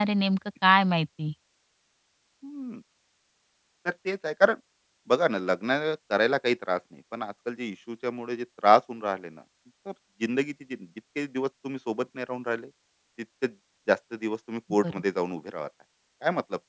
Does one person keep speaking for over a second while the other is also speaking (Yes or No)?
No